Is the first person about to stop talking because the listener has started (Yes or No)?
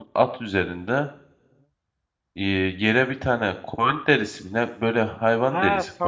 Yes